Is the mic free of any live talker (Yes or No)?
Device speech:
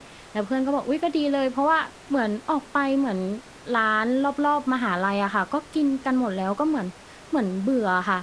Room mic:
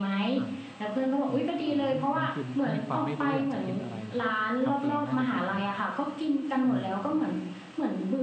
No